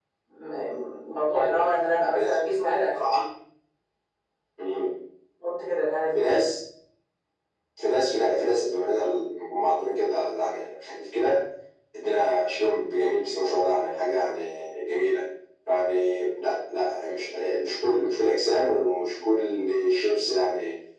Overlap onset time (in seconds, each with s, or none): 1.3 s